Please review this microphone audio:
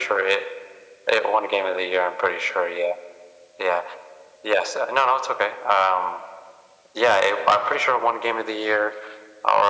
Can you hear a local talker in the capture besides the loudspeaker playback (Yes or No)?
No